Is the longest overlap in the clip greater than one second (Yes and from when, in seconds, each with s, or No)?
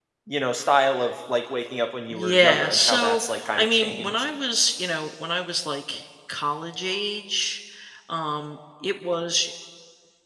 Yes, from 2.1 s